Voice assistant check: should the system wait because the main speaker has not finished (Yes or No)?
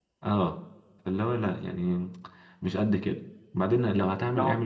Yes